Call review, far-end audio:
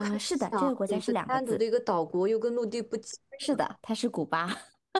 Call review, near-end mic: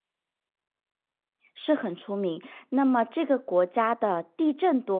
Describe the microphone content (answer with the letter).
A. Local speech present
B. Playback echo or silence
A